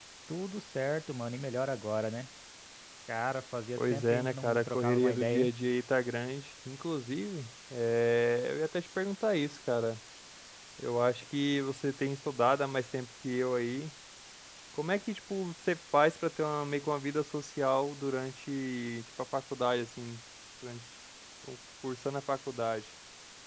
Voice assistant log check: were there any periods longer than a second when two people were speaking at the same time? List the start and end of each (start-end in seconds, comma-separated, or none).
3.8-5.5